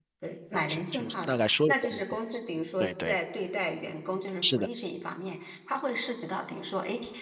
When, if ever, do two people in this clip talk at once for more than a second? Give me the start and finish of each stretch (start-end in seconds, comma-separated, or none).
0.5-2.0